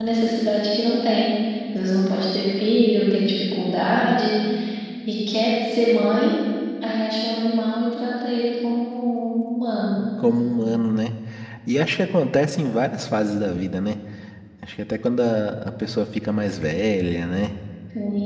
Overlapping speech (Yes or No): No